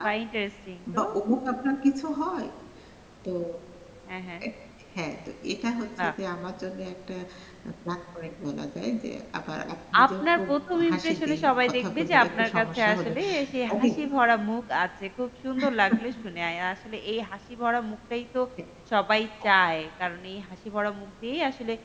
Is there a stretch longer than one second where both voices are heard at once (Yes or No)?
Yes